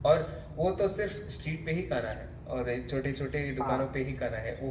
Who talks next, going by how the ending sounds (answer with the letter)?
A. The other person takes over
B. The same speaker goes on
B